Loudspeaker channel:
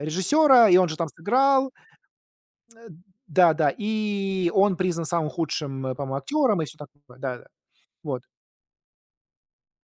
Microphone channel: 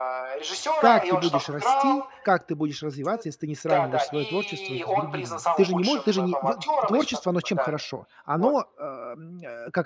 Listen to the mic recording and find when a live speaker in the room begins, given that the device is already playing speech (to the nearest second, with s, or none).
1 s